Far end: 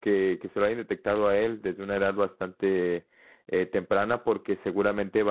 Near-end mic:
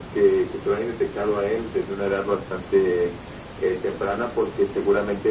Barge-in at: none

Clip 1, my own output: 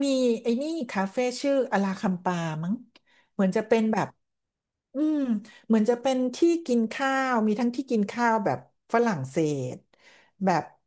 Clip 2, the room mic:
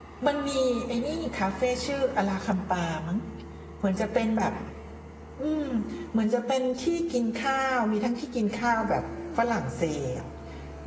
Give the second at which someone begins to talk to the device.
none

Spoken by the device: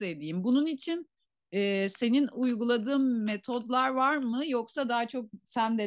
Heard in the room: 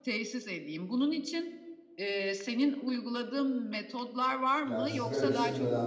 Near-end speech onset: 5 s

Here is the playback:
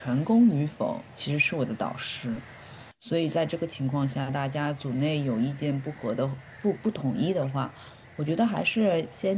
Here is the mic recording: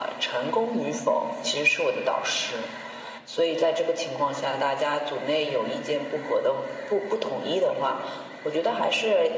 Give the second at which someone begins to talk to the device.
none

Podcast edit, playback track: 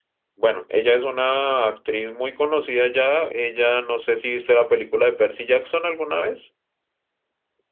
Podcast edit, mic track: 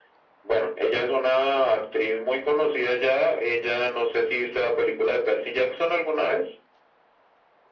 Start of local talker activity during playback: none

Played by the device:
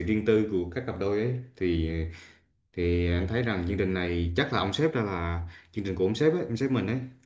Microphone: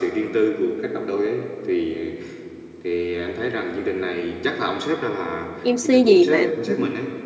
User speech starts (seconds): 6 s

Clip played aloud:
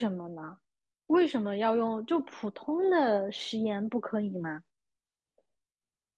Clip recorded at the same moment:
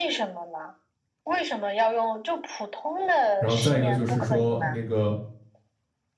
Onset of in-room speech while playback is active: 3 s

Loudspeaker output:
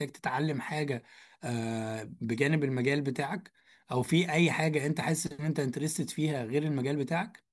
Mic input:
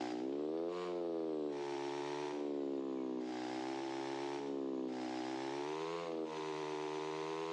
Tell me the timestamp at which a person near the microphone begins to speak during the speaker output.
none

